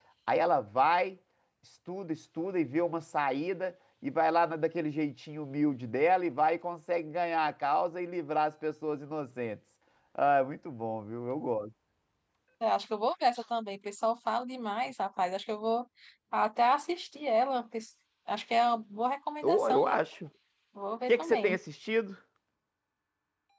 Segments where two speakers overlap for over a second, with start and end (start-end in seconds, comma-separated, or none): none